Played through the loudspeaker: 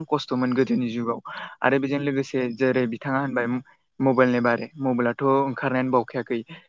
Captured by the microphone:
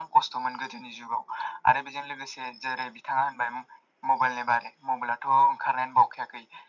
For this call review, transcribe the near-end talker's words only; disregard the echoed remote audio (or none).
none